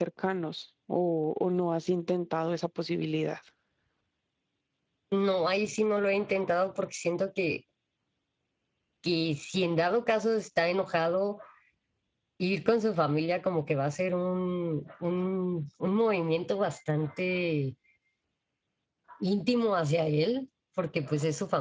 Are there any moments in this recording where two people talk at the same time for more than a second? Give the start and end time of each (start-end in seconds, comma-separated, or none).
none